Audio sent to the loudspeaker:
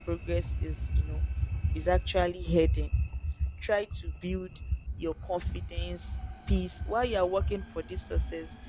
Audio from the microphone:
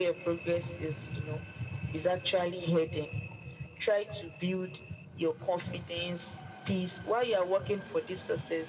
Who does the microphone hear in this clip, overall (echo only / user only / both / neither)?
echo only